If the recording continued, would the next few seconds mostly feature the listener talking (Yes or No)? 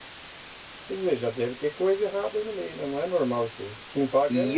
Yes